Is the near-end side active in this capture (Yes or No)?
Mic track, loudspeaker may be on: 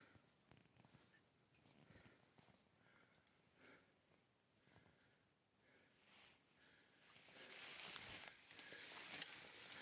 No